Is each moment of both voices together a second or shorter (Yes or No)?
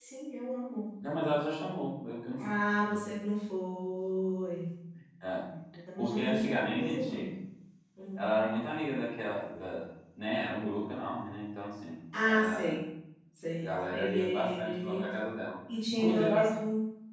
No